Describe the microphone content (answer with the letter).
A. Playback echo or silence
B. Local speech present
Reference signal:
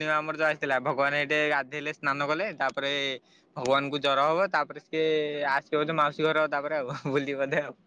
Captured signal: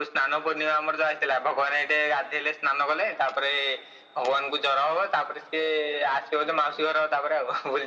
A